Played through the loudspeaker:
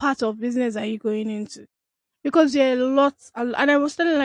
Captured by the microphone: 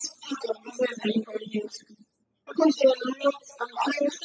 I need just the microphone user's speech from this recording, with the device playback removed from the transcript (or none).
none